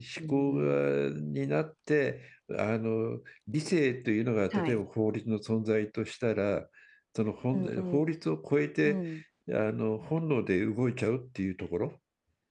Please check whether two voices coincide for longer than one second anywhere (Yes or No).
No